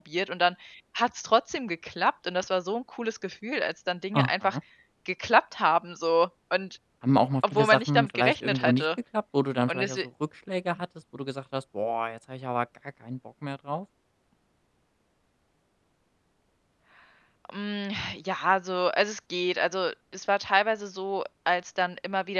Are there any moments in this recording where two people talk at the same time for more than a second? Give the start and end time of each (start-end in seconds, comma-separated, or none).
7.5-8.8